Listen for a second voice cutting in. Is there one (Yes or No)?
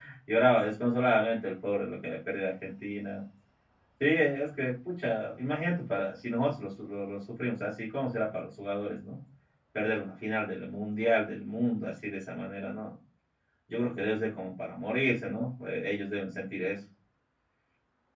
No